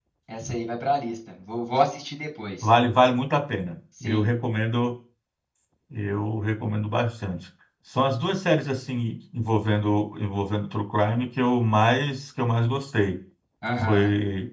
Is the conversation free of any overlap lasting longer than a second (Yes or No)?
Yes